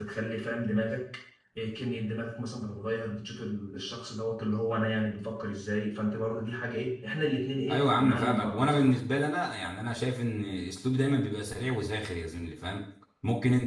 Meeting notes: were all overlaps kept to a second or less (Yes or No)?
No